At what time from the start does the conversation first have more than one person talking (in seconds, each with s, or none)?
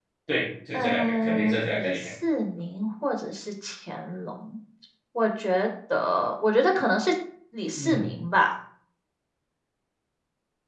0.7 s